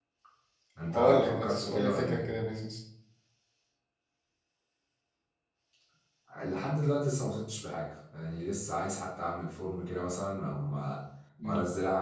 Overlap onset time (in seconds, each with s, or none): 0.9 s